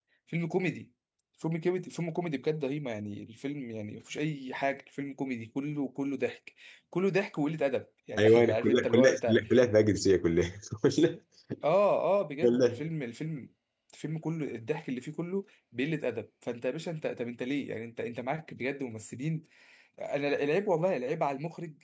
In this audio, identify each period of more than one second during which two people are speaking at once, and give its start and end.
8.2-9.4

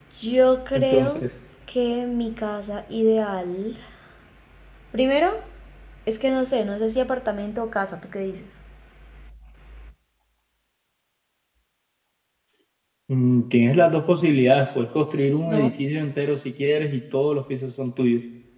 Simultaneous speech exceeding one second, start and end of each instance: none

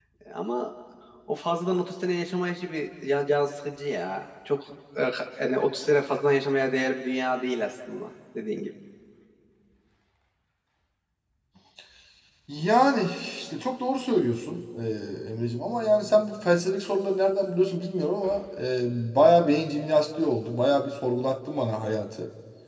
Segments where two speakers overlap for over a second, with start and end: none

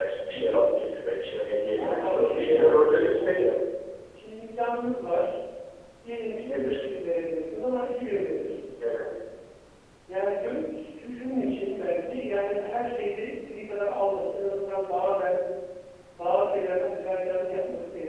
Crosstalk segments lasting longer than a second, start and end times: 1.8-3.5

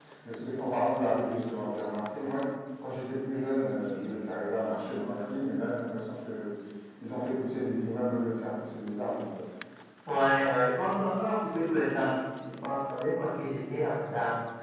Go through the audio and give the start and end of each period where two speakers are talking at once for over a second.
none

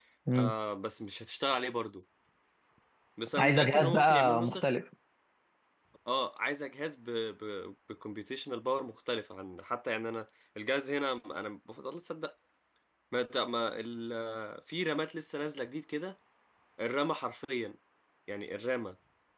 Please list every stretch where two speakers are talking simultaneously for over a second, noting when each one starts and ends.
3.4-4.7

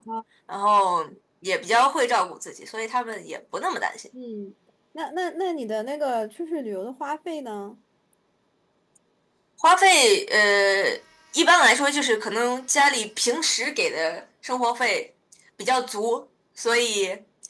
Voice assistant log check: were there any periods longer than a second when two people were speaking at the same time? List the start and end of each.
none

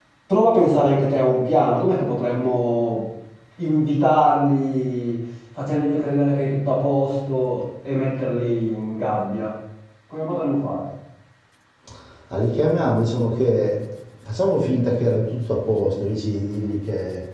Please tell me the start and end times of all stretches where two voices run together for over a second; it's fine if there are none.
none

